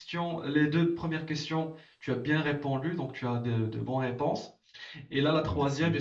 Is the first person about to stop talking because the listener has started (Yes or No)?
No